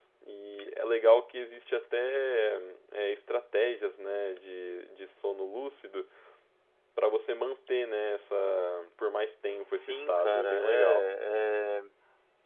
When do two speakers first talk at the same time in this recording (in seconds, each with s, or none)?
9.7 s